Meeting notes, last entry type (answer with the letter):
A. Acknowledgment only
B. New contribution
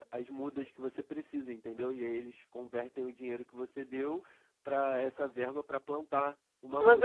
B